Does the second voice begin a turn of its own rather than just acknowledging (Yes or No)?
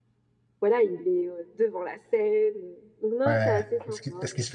Yes